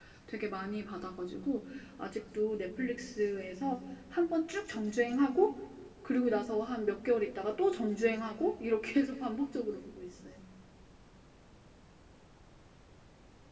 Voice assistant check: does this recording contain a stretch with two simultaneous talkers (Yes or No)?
No